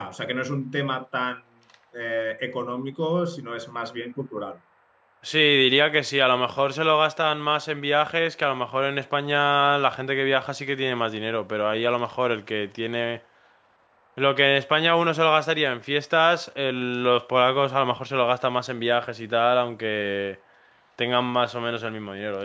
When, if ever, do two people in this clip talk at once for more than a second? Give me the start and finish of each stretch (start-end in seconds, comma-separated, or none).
none